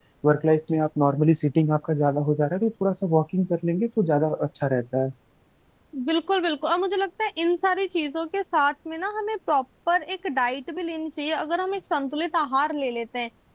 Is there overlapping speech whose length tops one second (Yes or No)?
No